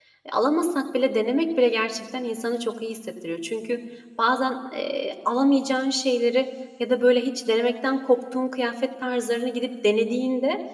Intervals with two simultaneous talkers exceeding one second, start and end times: none

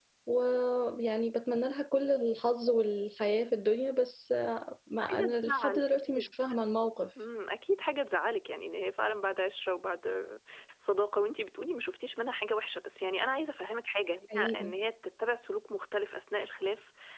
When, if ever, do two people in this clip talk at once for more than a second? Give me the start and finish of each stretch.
5.0-6.3

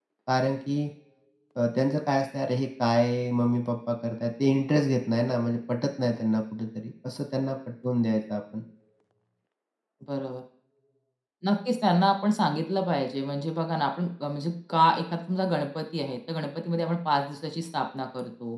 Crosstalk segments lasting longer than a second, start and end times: none

